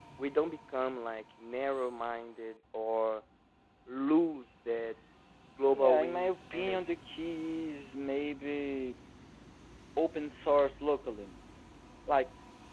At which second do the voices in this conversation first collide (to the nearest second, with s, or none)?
6 s